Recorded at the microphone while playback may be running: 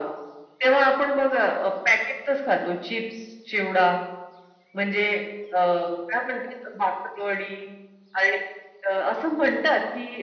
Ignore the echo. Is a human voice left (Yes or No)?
No